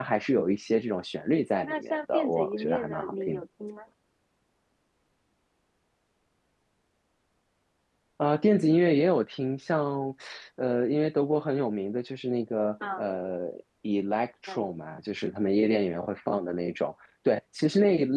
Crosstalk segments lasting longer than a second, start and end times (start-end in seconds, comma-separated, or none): 1.6-3.4